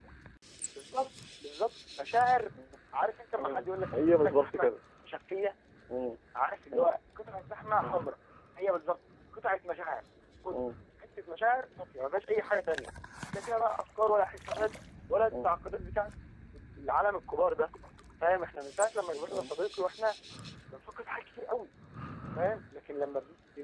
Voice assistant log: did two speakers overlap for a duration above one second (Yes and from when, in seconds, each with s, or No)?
Yes, from 3.4 s